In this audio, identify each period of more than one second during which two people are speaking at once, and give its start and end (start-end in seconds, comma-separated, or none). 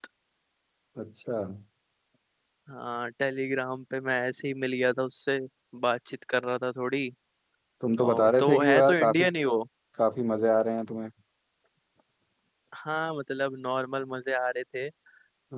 8.0-9.2